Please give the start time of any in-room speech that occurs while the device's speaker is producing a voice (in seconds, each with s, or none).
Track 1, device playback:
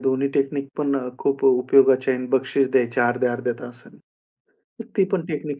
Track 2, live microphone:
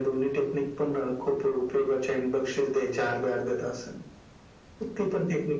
none